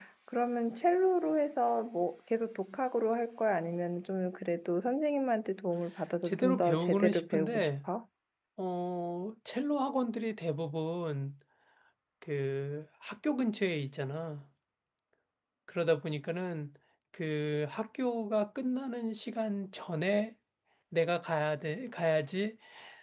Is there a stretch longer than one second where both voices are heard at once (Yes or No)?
Yes